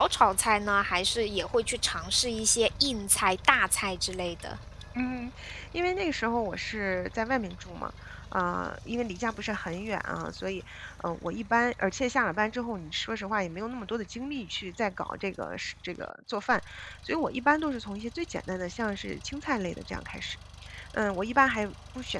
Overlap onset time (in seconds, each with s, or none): none